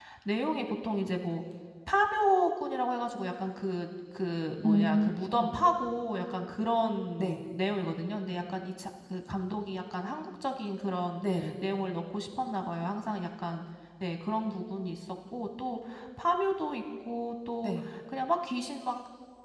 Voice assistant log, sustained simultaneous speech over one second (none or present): none